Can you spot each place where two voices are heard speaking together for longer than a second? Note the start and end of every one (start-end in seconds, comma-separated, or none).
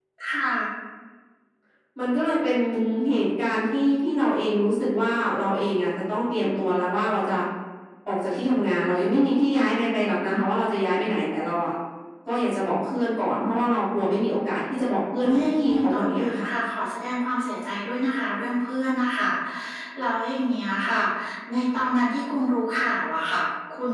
15.2-16.5